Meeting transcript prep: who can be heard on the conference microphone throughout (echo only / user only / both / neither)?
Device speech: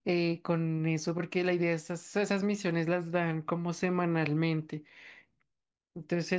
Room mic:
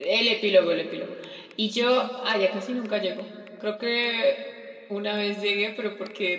user only